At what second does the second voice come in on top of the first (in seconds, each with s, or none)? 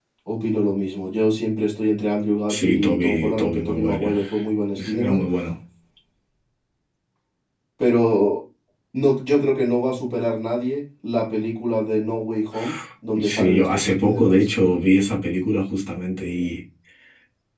2.5 s